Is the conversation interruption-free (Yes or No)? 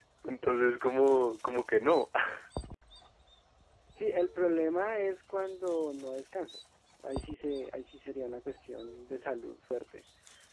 Yes